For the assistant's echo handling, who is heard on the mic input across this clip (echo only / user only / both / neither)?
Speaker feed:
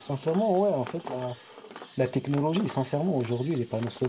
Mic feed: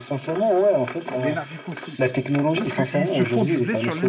both